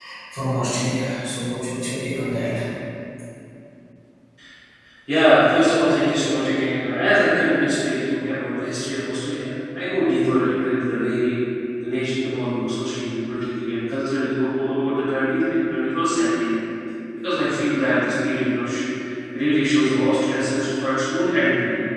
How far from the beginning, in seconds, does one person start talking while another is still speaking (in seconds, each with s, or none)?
none